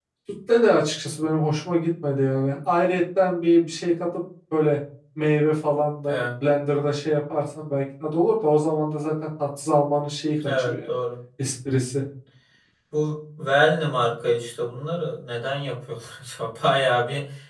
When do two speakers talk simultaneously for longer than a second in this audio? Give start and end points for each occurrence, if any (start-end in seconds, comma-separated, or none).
none